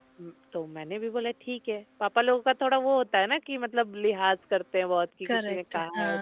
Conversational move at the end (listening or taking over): taking over